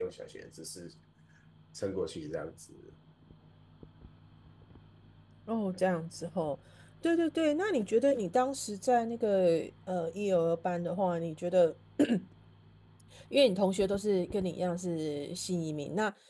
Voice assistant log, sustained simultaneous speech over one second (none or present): none